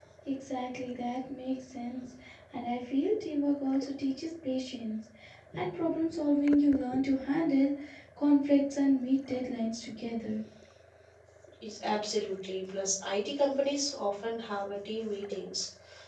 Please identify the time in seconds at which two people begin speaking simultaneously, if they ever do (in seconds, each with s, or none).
none